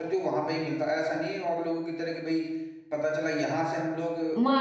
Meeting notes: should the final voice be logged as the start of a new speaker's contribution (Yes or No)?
Yes